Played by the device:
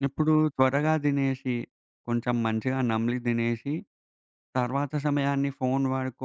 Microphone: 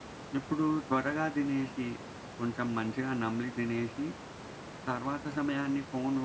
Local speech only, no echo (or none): none